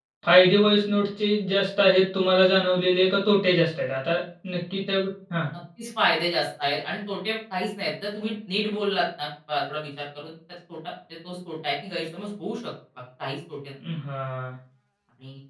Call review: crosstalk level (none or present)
none